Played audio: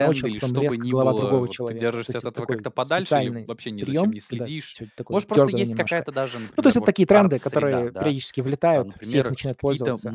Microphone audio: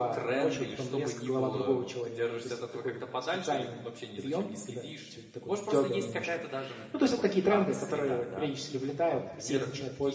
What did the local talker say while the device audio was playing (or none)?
none